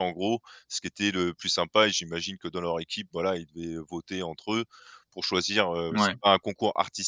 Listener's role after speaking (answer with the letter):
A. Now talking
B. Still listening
B